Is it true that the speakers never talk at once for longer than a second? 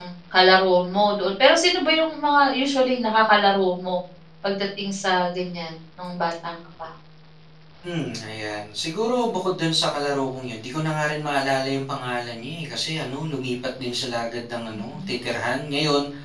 Yes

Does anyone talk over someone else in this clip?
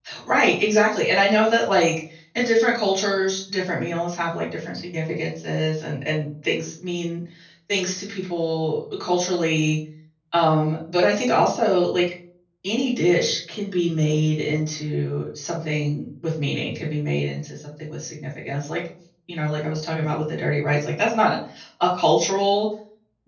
No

